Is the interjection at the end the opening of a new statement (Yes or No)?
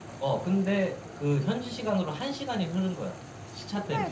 Yes